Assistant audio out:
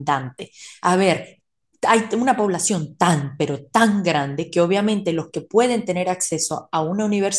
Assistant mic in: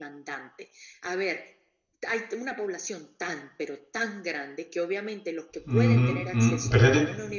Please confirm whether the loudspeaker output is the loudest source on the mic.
No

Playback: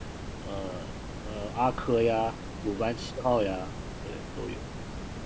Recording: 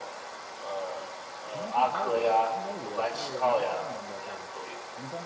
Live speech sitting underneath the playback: Yes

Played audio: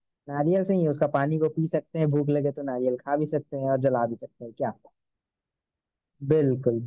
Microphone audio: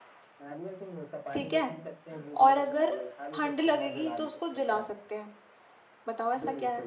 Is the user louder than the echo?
Yes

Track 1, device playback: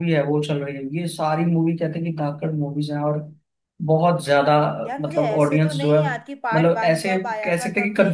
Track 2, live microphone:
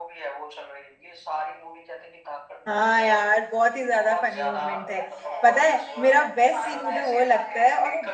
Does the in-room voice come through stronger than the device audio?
Yes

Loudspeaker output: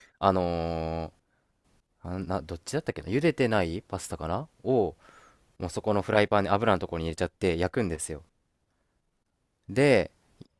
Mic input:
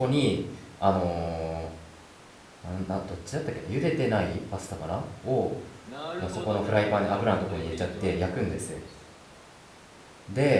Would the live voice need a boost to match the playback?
Yes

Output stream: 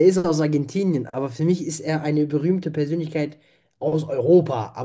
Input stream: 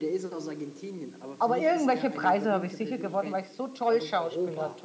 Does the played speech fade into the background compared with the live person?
Yes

